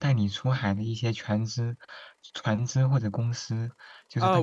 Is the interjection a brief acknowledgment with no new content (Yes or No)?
No